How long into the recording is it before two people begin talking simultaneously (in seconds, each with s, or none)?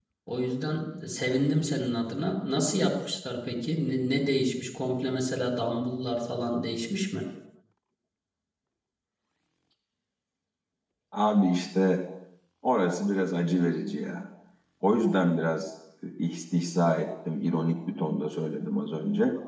none